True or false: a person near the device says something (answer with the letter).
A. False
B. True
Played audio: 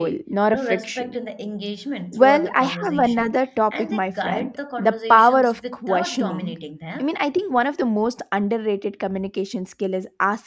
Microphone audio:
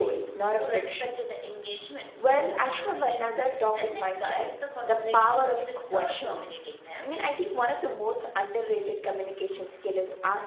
A